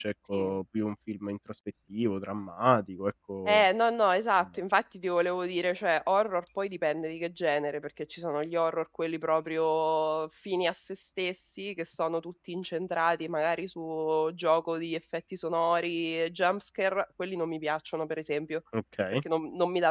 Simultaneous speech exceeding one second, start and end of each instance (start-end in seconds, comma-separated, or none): none